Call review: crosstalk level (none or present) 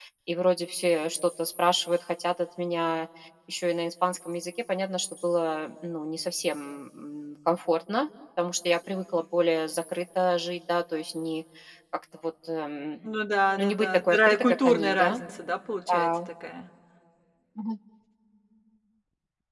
present